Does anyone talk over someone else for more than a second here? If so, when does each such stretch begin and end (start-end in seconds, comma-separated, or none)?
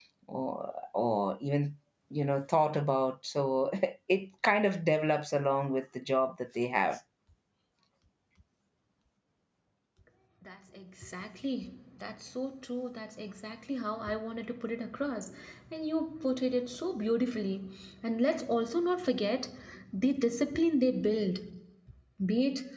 none